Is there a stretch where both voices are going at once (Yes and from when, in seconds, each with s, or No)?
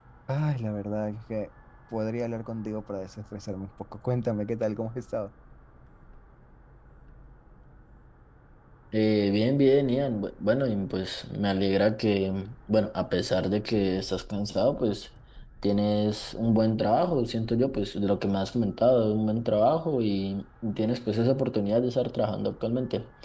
No